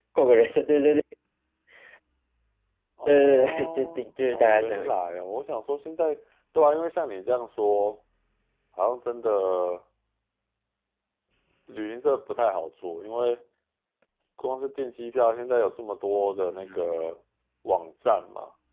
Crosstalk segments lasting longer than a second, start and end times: 3.1-5.0

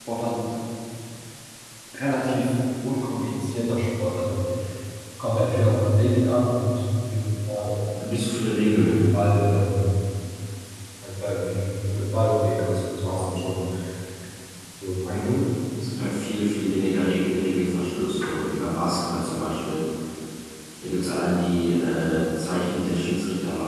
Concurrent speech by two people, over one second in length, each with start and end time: none

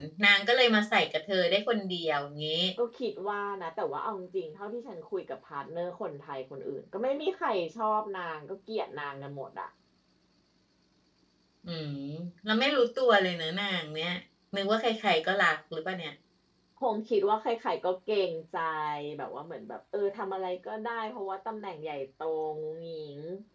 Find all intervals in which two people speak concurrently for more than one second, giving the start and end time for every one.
none

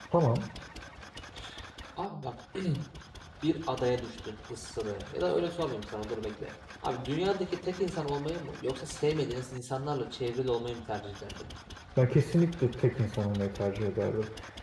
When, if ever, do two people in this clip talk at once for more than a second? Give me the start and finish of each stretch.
none

